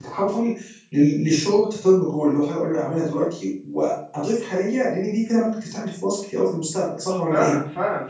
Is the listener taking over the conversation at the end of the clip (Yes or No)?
Yes